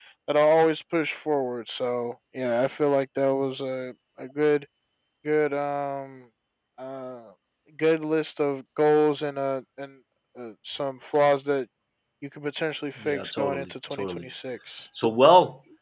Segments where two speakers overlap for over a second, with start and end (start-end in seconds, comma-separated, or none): 13.0-14.2